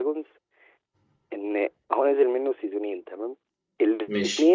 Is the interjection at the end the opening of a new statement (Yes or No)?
No